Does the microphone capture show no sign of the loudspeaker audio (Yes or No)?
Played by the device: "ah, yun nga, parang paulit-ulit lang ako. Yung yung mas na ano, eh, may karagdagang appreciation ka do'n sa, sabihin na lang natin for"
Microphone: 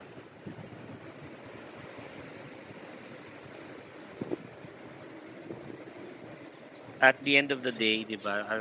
Yes